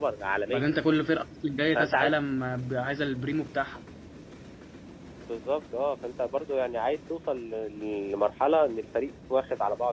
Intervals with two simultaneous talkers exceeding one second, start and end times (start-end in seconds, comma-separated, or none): none